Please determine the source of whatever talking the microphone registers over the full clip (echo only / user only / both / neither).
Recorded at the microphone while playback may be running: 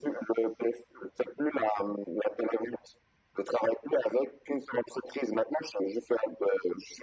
echo only